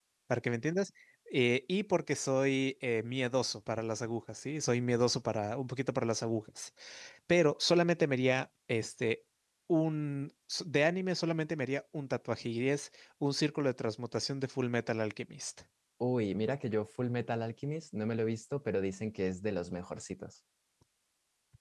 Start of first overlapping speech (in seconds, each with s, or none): none